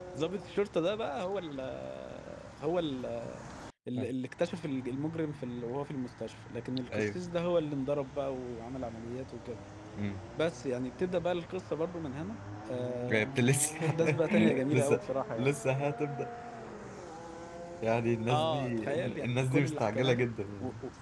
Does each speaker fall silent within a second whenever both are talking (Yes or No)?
No